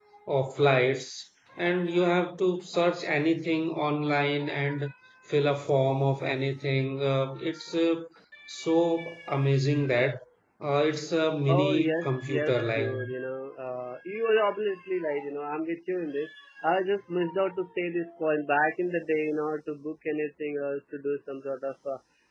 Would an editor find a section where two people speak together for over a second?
Yes, from 11.5 s

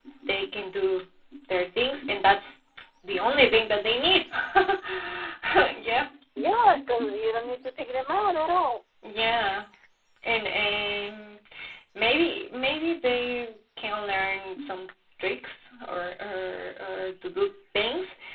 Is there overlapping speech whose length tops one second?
No

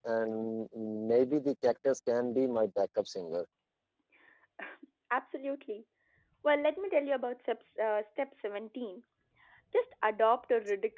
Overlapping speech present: No

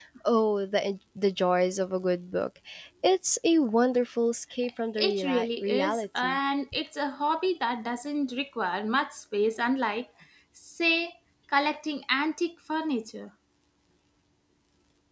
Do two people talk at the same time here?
Yes, from 5.0 s

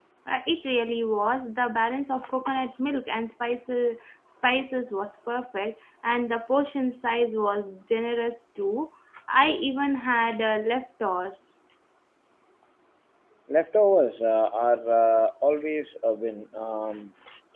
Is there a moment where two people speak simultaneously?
No

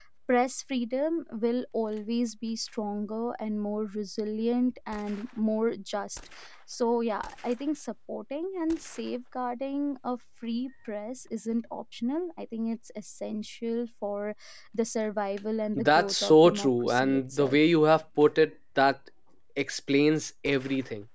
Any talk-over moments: Yes, from 15.8 s

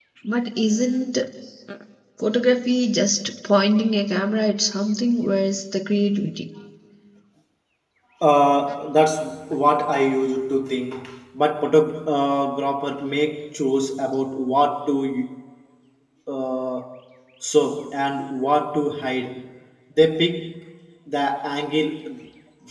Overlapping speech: No

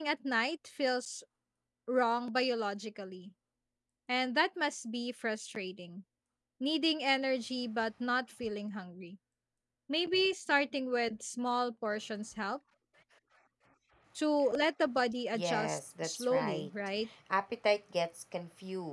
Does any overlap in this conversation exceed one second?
Yes, from 15.3 s

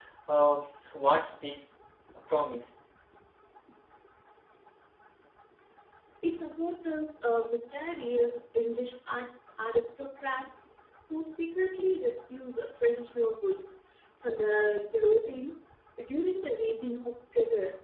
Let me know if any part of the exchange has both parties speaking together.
No

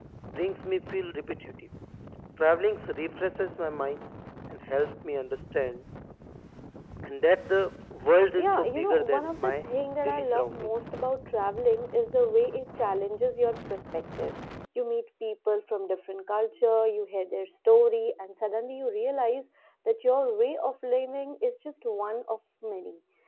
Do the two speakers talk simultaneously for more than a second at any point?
Yes, from 8.4 s

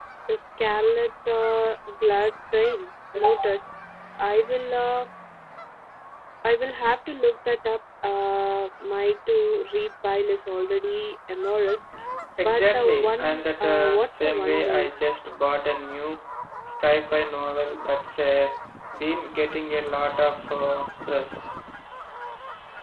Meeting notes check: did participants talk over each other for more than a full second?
Yes, from 12.4 s

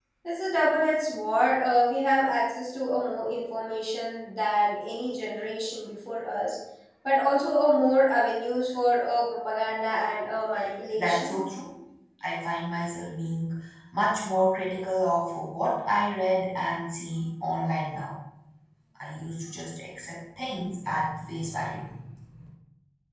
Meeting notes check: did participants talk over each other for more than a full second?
No

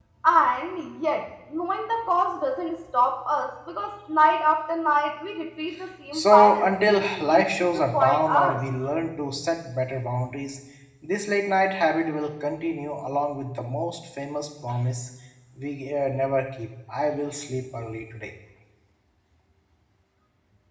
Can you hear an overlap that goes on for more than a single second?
Yes, from 6.1 s

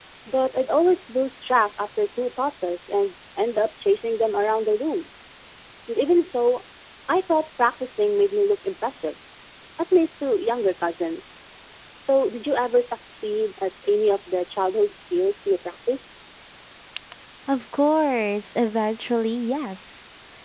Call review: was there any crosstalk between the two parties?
No

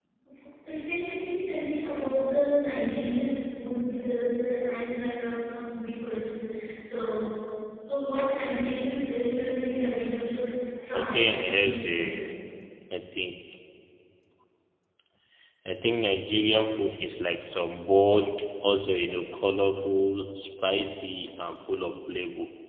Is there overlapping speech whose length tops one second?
Yes, from 10.9 s

